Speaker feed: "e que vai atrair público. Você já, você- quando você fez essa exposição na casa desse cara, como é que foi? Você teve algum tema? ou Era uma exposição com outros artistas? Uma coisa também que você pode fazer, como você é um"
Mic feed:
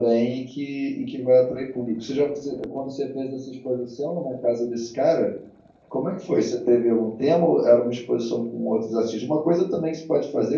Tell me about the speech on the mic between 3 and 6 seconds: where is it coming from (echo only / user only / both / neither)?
echo only